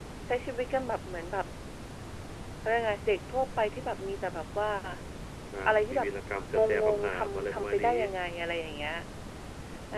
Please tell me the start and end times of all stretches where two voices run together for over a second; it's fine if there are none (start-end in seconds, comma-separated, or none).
6.5-7.9